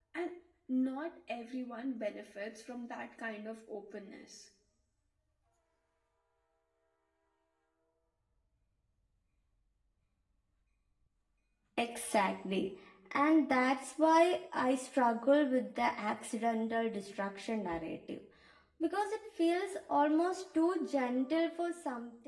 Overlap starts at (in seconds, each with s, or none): none